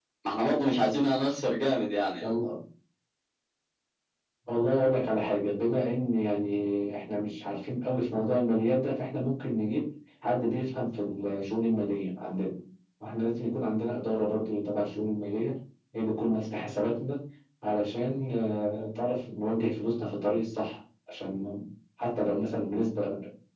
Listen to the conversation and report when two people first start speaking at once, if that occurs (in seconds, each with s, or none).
none